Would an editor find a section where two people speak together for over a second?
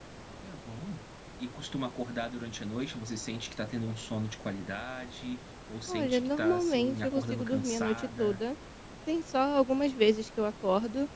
Yes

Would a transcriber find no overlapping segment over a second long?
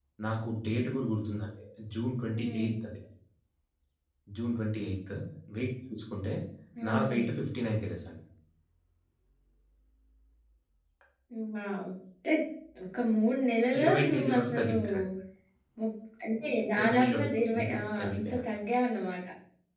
No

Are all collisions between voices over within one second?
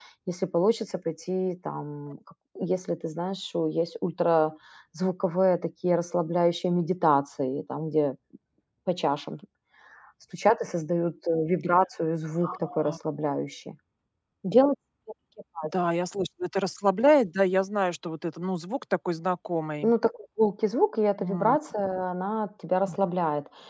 Yes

